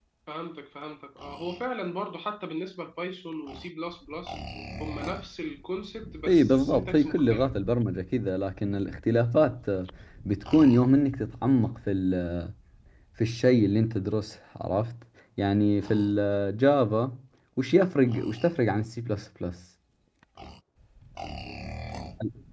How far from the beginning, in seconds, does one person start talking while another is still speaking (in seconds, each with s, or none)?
6.3 s